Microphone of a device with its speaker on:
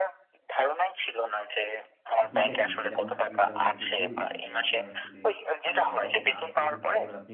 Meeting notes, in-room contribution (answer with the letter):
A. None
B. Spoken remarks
B